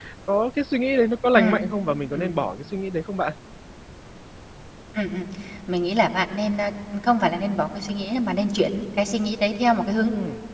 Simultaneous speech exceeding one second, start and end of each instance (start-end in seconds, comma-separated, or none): none